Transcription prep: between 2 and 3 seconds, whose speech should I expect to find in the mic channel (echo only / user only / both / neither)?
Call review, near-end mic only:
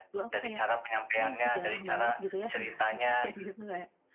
both